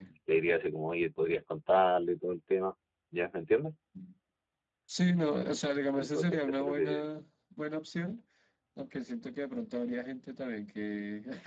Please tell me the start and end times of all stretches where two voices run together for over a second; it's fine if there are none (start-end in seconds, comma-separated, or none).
5.9-7.1